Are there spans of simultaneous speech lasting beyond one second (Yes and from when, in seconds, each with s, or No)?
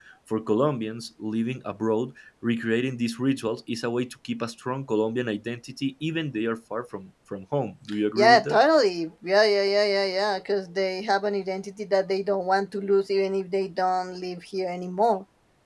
No